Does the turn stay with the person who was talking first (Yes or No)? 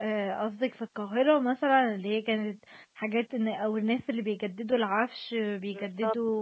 Yes